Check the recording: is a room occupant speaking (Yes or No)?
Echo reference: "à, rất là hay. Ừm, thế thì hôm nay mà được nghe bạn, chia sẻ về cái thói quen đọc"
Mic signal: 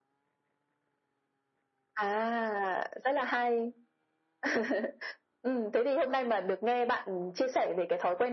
No